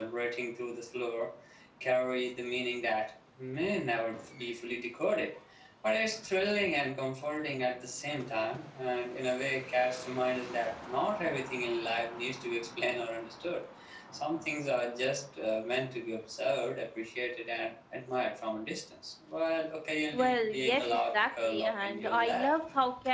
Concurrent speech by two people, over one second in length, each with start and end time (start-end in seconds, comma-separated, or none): 20.1-22.5